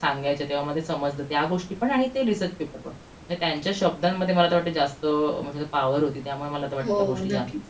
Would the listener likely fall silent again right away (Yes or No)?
No